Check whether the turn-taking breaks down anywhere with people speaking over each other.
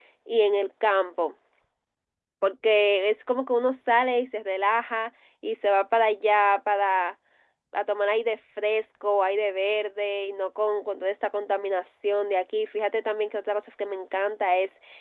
No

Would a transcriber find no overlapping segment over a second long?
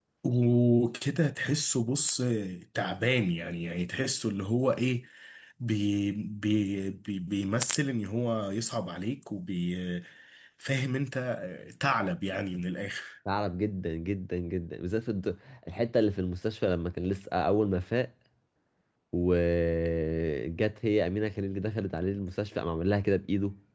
Yes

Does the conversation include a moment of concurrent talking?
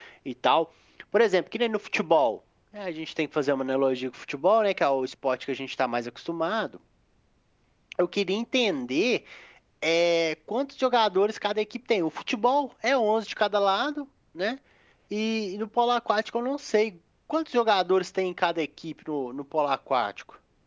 No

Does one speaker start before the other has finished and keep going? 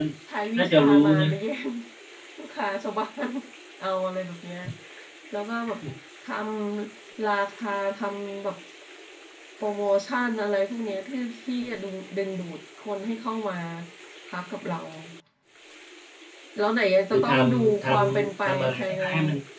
Yes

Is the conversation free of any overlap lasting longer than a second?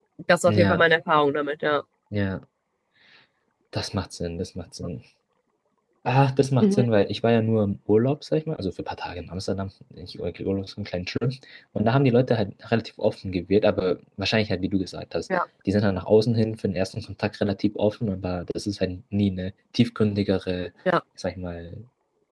Yes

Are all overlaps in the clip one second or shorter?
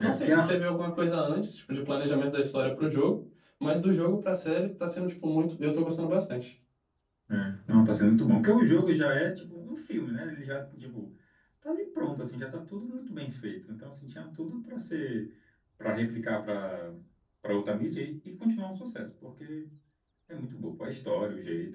Yes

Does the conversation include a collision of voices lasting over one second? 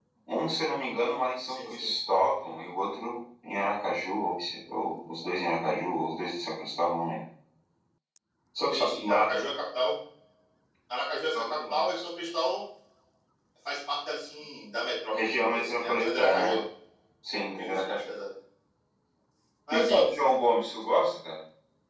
Yes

